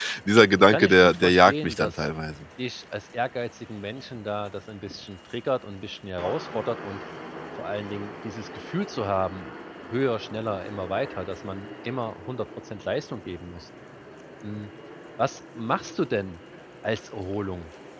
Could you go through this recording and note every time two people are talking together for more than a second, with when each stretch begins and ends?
0.6-2.1

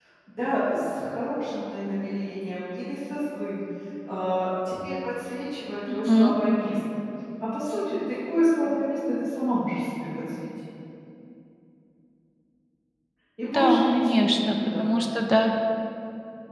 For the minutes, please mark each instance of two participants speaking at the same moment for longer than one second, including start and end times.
13.4-14.9

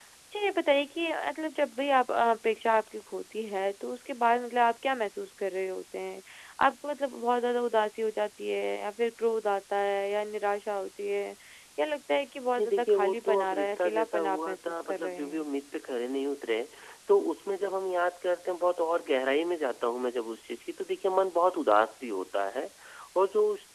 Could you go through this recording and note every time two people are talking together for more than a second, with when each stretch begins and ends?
12.6-15.4

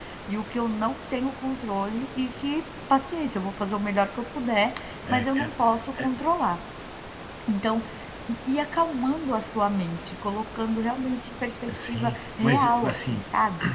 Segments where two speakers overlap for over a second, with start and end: 11.7-13.2

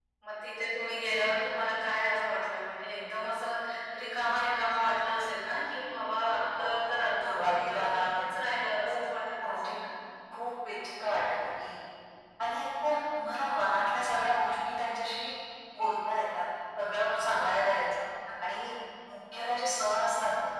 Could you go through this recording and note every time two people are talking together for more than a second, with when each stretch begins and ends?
6.3-8.0

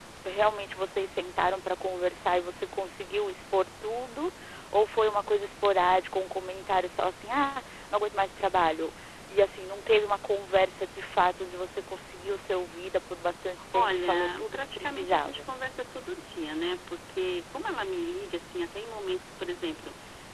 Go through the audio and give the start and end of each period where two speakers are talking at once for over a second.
13.7-15.4

